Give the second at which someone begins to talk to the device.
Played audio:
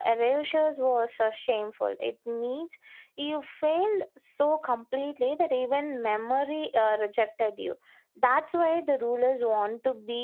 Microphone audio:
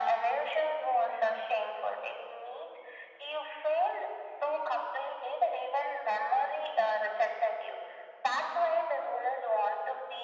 none

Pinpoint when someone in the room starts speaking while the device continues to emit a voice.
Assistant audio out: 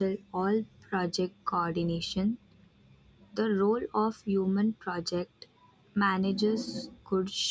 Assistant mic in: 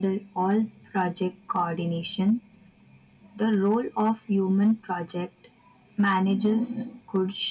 none

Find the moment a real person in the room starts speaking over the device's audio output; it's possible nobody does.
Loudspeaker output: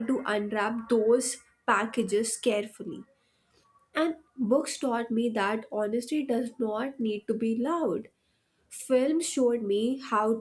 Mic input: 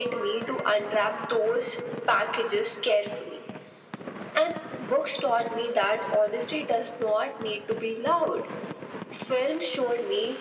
none

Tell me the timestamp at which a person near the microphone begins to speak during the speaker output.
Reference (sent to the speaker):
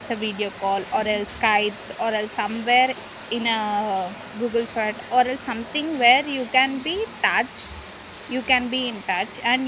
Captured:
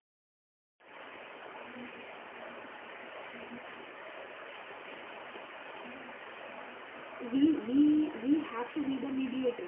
7 s

